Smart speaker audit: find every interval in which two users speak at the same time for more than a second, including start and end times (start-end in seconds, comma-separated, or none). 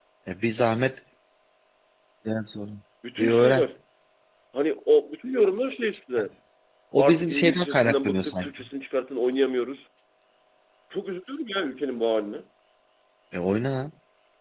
7.0-8.5